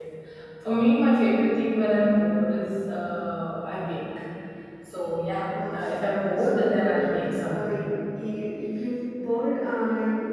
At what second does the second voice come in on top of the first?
5.5 s

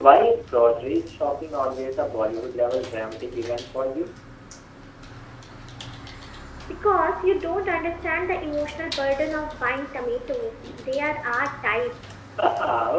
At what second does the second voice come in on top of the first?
none

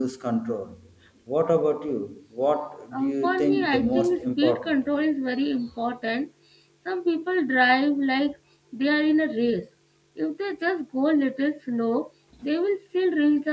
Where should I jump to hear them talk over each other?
2.9 s

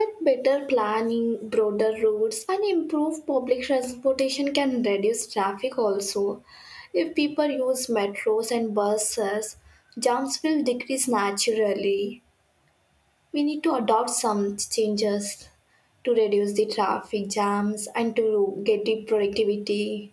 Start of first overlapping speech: none

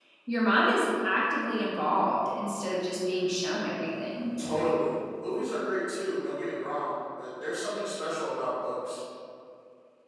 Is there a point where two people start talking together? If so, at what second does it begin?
none

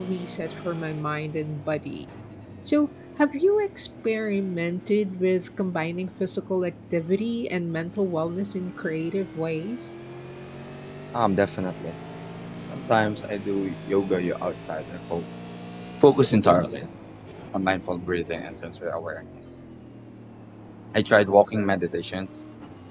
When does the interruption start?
none

